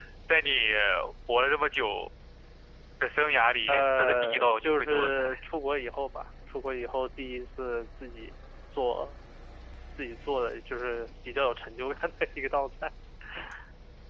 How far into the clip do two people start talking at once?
4 s

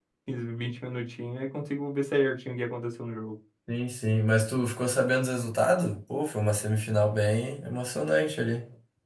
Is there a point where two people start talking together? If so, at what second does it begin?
none

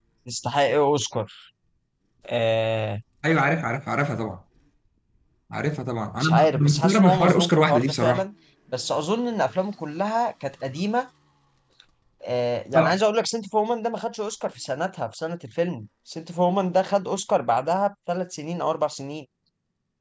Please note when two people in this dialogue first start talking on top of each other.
6 s

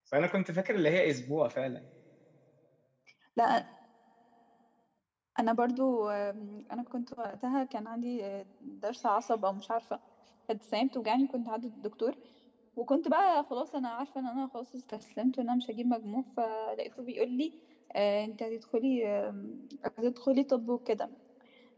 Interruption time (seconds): none

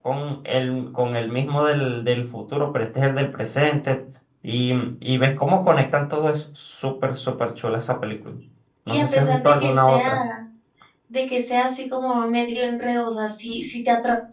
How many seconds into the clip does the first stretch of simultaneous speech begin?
9 s

